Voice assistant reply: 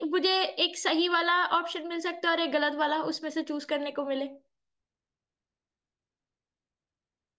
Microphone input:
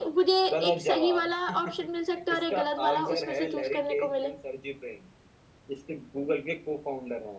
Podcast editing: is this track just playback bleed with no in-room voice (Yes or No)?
No